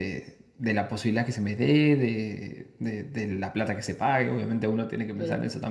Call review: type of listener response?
listening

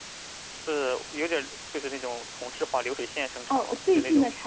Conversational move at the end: taking over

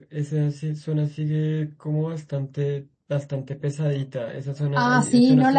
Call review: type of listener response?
taking over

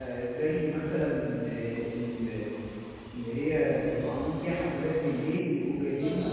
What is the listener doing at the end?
listening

